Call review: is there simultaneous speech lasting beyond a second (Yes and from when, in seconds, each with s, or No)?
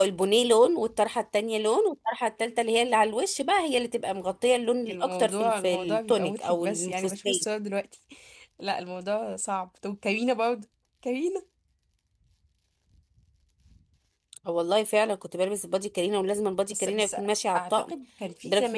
Yes, from 4.9 s